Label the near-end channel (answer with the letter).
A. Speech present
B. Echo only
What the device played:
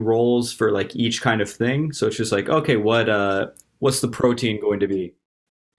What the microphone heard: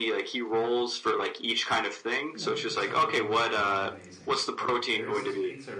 A